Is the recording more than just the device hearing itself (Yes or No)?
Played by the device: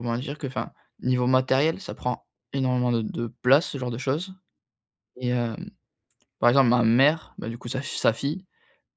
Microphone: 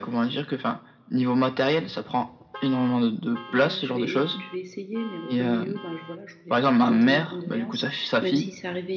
Yes